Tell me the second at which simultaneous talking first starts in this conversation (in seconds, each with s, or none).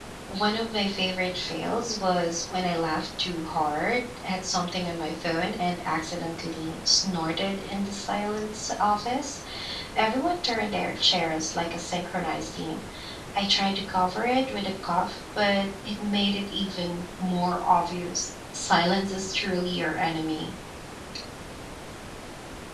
none